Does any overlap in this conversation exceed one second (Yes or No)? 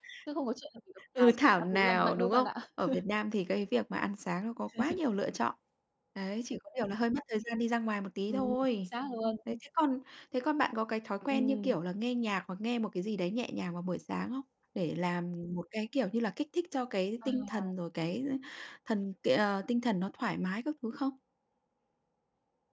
Yes